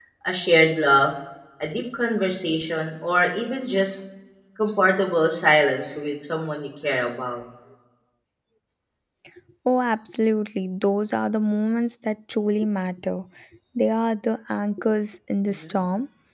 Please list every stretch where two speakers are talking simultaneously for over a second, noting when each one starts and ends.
none

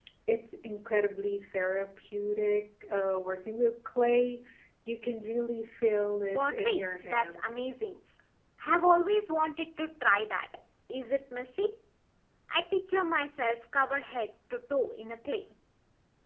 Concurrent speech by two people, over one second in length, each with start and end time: 6.3-7.6

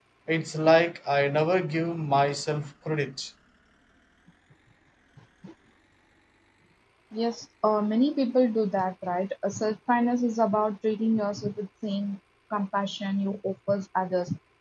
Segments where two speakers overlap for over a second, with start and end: none

